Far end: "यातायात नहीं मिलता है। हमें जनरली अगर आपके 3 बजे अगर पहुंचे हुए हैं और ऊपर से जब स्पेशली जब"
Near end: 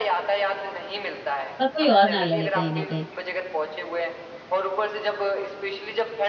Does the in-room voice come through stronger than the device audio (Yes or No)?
Yes